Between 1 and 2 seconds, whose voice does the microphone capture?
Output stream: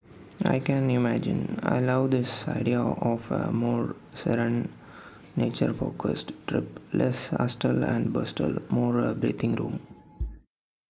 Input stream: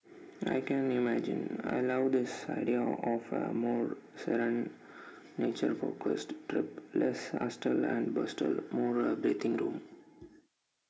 echo only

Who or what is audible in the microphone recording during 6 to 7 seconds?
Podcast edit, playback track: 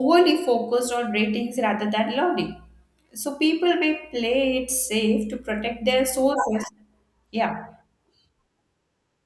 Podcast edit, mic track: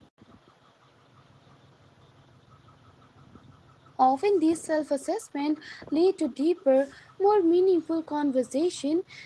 user only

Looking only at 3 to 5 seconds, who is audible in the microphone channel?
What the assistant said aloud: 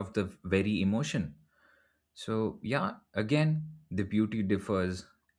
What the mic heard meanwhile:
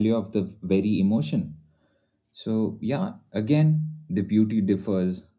echo only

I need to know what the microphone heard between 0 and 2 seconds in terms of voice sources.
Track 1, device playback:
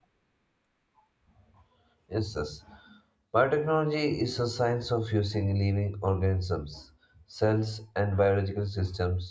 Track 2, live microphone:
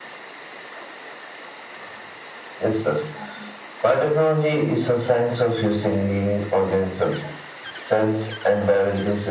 neither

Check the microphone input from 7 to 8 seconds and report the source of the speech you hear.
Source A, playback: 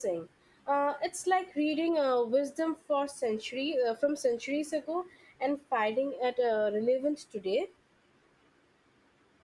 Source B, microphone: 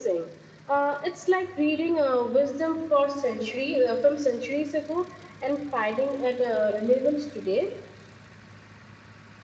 echo only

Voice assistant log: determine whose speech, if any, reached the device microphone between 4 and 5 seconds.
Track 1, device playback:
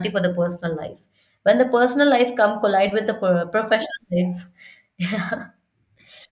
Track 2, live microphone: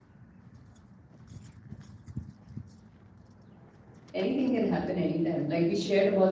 user only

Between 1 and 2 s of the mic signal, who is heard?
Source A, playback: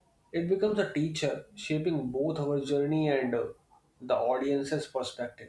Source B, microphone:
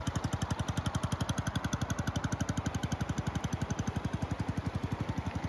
neither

